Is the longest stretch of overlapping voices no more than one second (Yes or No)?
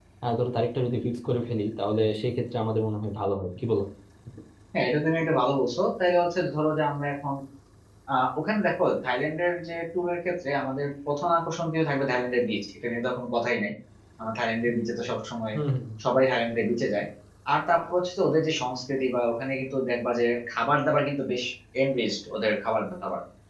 Yes